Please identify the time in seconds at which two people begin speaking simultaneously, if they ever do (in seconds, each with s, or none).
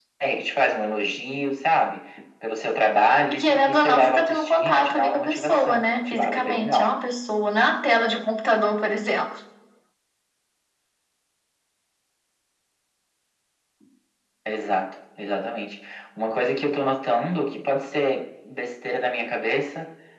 3.3 s